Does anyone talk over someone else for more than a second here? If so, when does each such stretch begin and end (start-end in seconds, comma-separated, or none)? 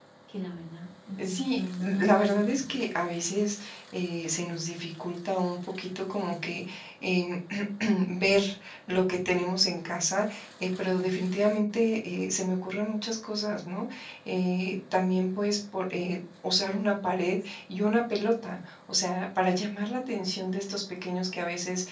1.2-2.8